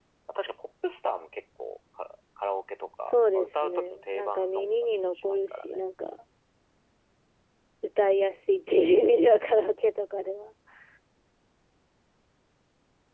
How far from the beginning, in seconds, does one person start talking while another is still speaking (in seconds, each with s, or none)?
3.1 s